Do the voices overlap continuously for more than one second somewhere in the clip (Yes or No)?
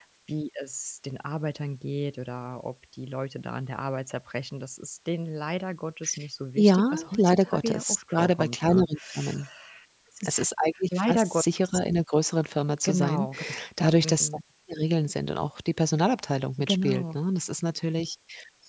Yes